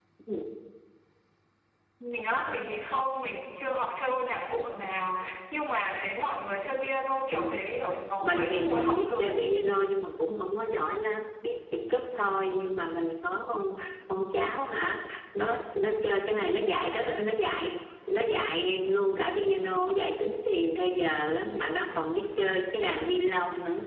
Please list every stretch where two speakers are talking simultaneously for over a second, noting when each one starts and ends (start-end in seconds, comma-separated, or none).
8.2-9.4